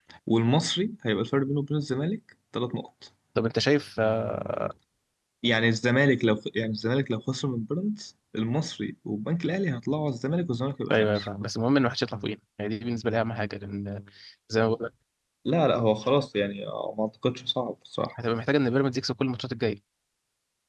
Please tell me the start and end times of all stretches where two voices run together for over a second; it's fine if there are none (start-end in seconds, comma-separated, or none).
none